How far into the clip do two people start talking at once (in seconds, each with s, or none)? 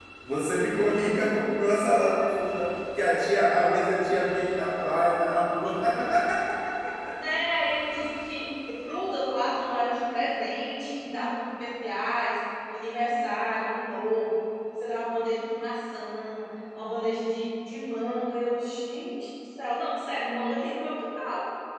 none